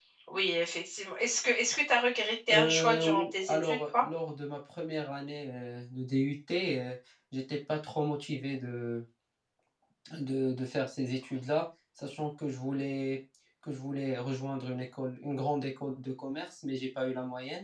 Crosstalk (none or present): present